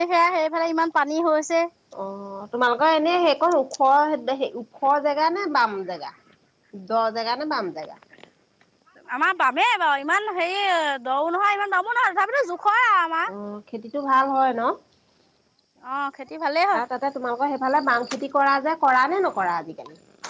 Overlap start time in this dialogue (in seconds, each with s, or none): none